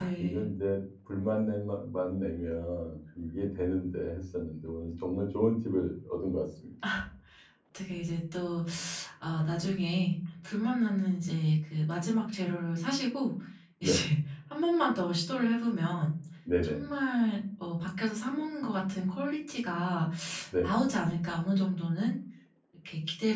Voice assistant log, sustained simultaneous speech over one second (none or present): none